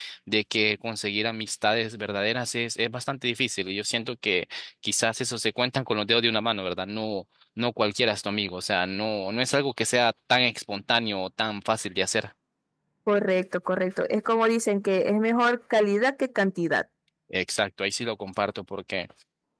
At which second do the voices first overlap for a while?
none

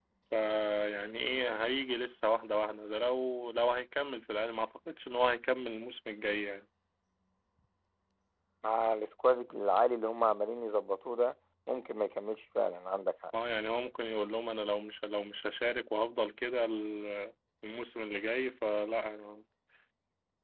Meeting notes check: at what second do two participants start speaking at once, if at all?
none

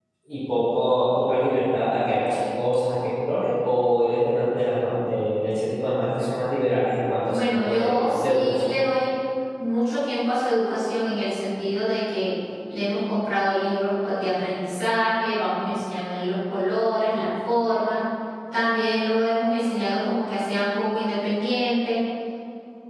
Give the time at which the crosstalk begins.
7.3 s

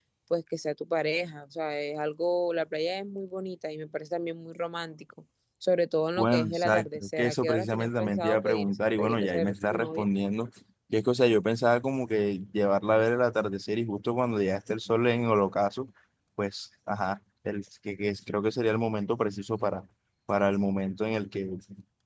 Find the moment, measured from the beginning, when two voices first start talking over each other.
6.2 s

